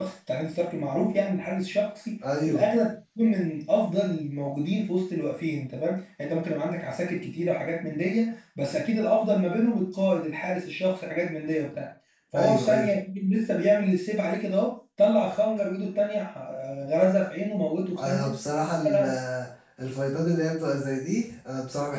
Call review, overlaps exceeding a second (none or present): none